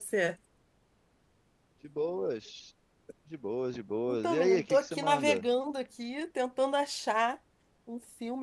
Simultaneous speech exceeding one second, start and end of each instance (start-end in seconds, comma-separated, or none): 4.1-5.4